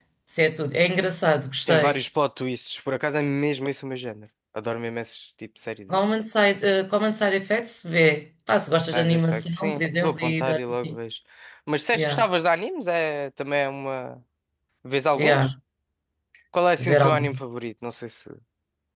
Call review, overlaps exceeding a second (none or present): present